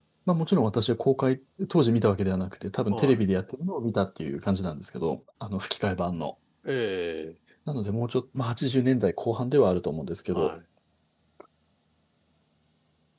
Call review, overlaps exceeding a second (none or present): none